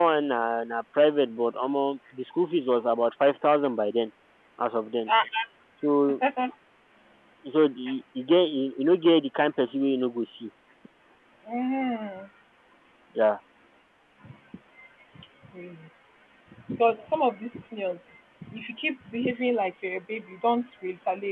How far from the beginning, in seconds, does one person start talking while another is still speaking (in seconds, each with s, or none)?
none